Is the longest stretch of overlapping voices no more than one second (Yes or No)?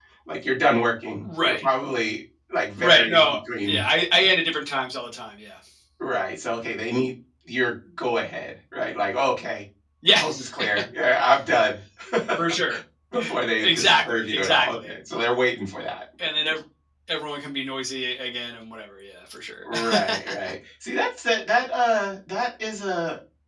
No